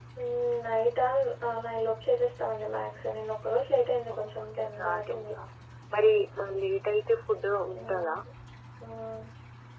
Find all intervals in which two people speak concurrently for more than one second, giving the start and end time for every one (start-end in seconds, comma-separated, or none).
4.1-5.3